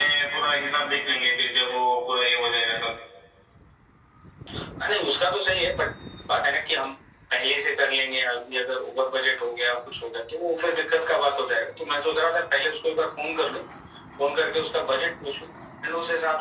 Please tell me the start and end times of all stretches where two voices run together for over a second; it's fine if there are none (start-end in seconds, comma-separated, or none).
none